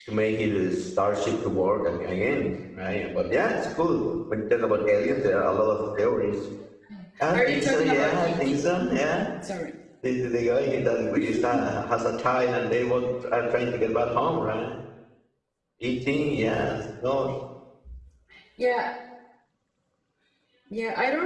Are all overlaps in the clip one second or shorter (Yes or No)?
No